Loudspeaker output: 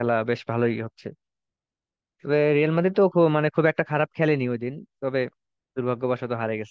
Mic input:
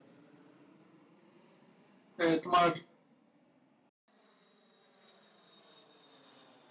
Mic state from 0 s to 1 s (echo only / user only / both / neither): neither